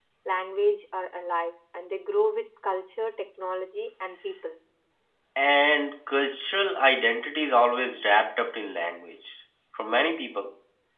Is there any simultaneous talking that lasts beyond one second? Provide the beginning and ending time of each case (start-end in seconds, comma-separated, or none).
none